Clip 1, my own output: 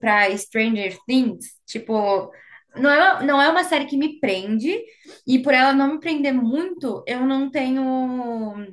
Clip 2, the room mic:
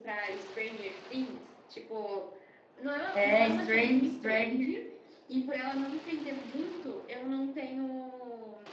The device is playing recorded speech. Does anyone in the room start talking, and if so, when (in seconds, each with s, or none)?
3.1 s